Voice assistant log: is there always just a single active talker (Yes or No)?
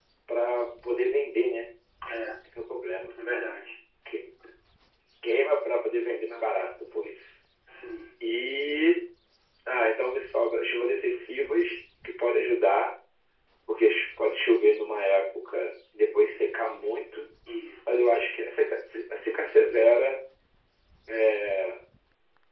Yes